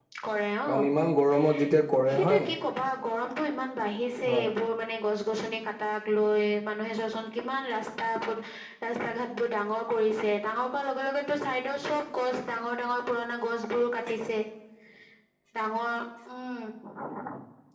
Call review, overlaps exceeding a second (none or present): none